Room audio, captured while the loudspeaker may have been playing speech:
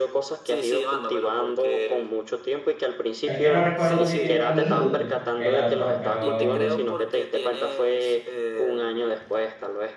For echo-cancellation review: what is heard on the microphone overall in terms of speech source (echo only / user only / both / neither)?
both